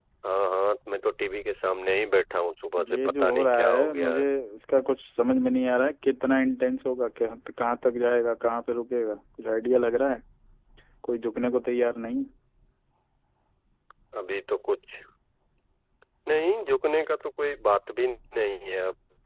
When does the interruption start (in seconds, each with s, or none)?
2.8 s